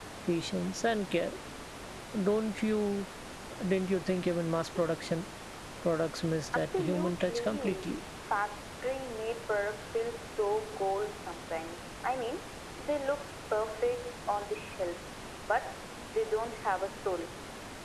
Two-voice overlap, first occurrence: 6.6 s

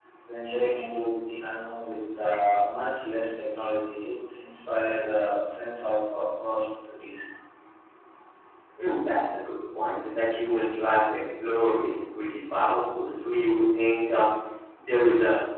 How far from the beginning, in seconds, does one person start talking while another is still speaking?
none

